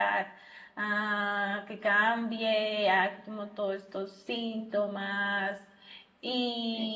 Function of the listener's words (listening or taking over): listening